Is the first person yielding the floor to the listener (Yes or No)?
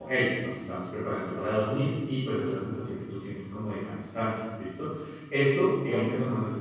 No